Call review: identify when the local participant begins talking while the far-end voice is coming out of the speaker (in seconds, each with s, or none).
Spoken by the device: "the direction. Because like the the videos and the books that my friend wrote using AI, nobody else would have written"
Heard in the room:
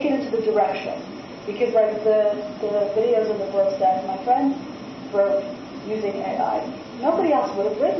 none